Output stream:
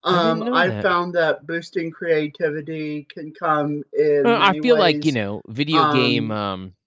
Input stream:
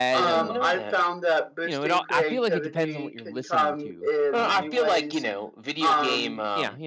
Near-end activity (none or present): present